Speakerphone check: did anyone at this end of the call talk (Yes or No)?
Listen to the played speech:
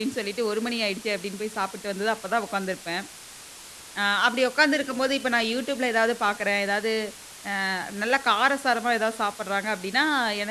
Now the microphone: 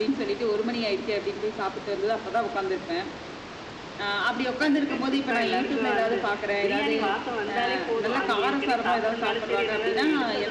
Yes